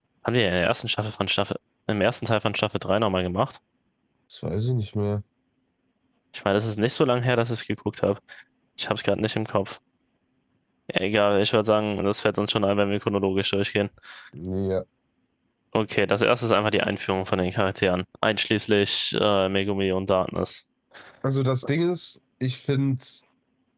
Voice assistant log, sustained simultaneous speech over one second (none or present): none